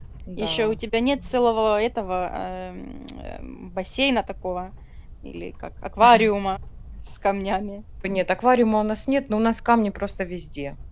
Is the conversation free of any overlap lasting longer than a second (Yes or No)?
Yes